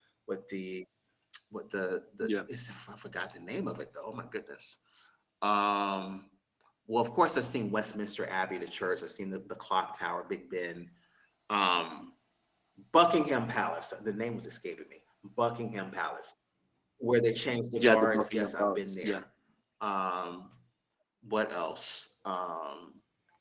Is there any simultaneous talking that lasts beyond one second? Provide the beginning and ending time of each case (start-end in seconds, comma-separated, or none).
17.8-19.2